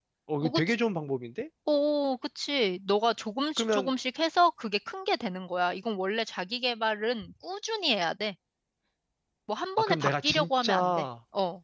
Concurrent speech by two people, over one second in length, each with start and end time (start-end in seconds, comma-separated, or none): 9.8-11.1